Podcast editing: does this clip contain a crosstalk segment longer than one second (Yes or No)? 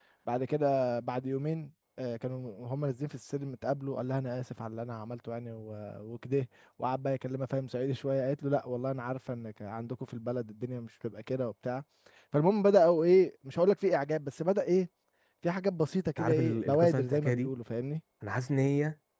Yes